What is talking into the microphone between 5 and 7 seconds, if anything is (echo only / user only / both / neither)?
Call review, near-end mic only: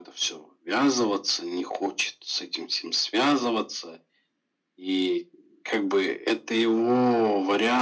echo only